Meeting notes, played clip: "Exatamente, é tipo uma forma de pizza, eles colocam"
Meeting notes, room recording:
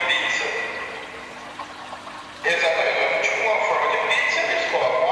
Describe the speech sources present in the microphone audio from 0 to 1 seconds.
echo only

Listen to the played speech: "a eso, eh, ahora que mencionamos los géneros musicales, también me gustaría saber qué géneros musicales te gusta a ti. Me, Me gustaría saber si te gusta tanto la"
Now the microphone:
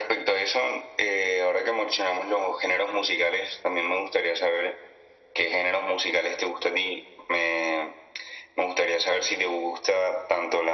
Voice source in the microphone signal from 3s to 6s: echo only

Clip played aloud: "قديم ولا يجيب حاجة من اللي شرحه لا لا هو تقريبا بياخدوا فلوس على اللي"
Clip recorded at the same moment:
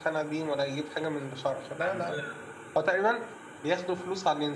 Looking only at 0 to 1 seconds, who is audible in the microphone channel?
echo only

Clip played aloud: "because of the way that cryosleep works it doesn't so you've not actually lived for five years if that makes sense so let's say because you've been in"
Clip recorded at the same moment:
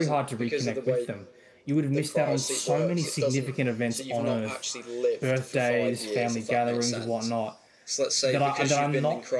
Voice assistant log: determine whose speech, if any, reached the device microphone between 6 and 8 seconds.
both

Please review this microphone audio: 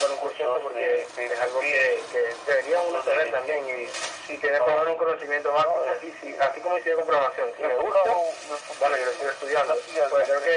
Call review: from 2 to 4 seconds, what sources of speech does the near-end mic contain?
echo only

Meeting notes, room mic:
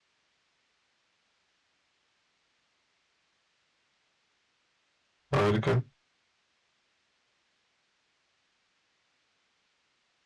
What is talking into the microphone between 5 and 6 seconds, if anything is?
user only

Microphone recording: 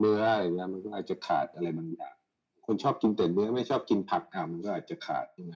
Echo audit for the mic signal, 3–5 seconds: echo only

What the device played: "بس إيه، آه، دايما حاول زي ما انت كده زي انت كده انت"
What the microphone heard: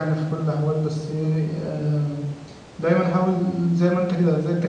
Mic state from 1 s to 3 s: echo only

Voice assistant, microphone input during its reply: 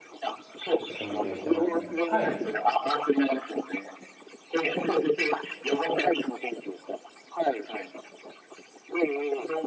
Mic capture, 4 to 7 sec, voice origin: echo only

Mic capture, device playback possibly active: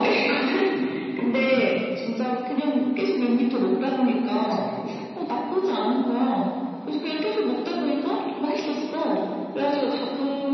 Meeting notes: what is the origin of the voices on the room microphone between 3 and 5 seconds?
both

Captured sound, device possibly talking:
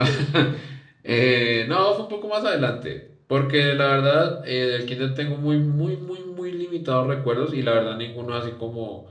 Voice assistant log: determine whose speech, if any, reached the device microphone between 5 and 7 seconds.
user only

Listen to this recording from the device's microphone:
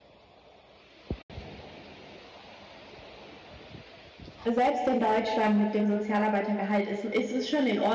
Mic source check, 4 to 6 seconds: user only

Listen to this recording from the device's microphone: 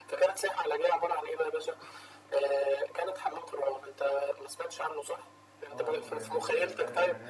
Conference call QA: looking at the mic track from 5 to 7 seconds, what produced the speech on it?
both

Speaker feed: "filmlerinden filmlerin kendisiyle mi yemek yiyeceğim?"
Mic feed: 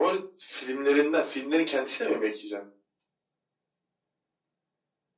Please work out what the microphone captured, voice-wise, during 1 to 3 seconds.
echo only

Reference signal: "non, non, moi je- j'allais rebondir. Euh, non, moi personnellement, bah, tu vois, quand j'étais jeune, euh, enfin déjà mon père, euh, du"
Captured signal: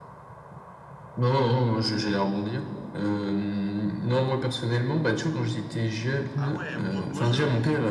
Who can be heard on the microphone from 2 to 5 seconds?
echo only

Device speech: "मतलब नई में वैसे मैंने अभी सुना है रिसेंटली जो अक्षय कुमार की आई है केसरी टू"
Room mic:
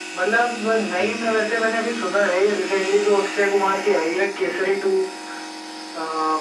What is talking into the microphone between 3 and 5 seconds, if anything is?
echo only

